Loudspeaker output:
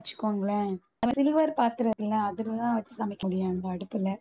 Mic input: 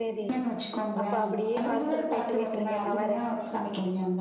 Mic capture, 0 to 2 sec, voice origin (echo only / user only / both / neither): both